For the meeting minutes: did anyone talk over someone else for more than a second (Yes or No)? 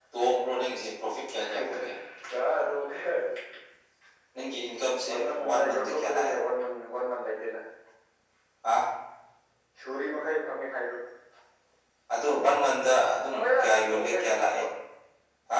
Yes